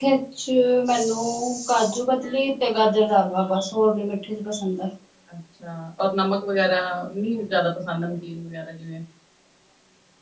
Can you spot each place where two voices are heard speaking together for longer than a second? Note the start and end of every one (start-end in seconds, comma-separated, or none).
none